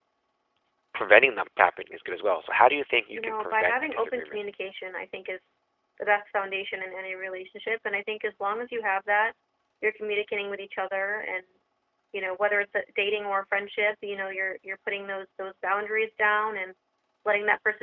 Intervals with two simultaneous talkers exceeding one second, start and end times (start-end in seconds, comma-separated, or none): 3.1-4.4